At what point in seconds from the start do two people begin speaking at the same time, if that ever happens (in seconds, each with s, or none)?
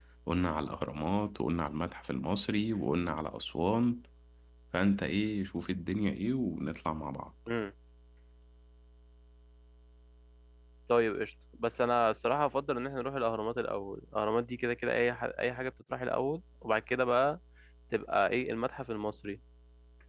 none